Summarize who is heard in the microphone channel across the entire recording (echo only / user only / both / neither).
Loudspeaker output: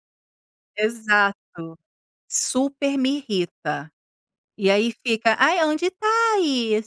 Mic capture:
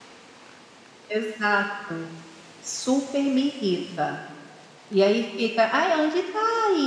echo only